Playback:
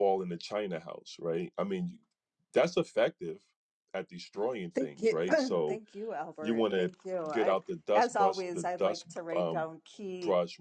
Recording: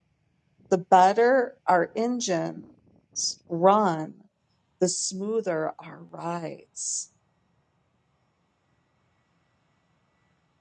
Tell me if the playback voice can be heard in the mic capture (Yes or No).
No